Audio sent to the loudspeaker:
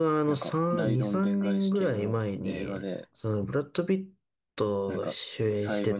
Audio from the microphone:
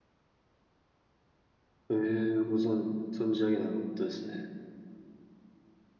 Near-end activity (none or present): present